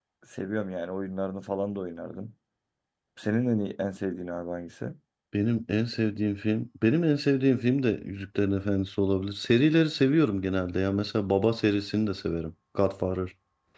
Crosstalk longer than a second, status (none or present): none